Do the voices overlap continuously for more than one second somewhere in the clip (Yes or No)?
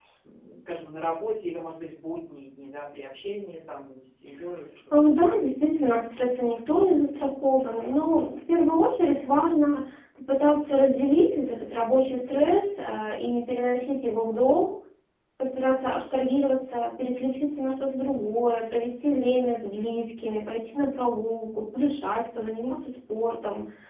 No